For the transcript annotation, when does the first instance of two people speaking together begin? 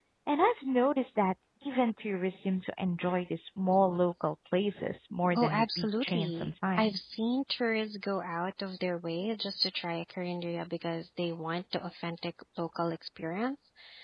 5.3 s

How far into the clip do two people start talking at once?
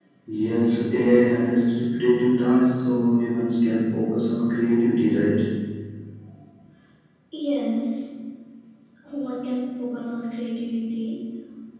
none

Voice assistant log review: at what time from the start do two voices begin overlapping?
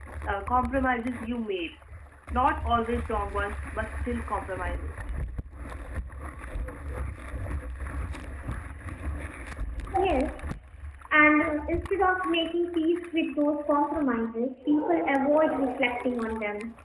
none

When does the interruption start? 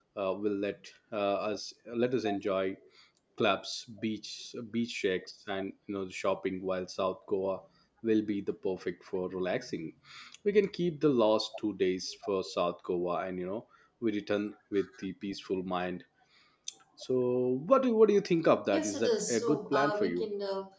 18.7 s

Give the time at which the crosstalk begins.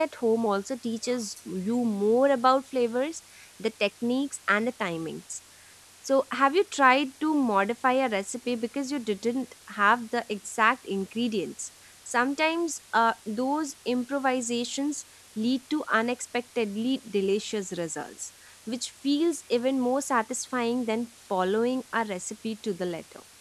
none

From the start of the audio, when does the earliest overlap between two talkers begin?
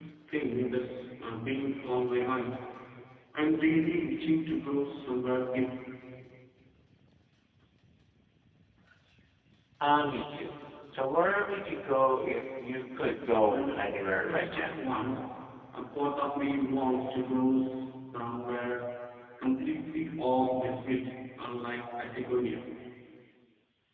13.4 s

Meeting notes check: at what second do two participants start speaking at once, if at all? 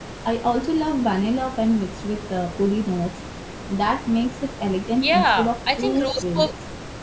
5.0 s

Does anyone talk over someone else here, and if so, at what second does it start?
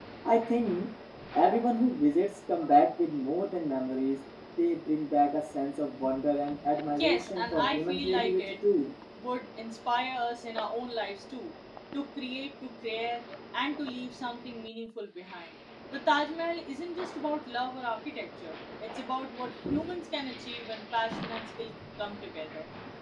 7.0 s

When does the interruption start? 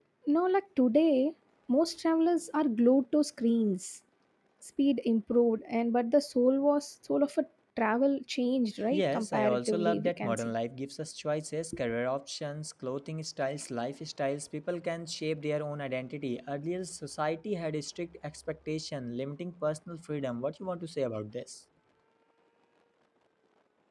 8.9 s

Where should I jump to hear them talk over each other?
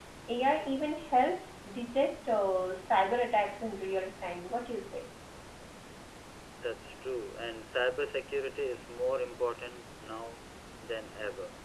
none

